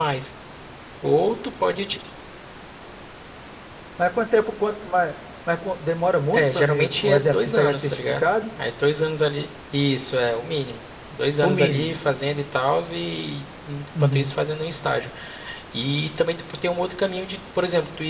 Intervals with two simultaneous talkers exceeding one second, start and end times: 6.3-8.3

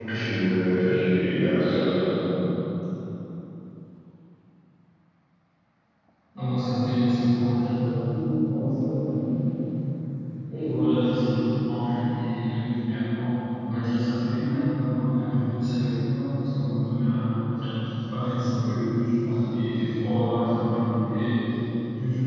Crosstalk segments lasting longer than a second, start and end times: none

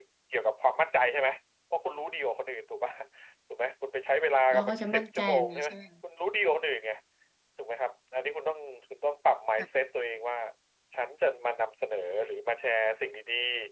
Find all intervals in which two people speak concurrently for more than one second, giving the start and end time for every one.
4.5-5.8

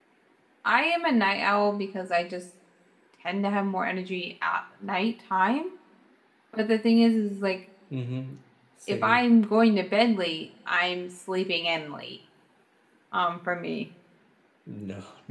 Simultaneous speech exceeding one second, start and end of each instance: none

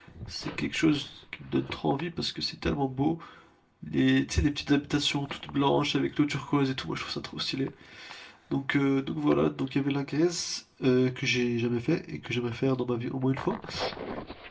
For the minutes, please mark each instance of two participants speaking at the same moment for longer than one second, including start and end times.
none

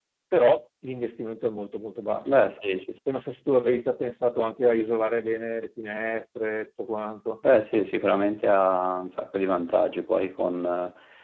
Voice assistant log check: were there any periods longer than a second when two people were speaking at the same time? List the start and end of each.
none

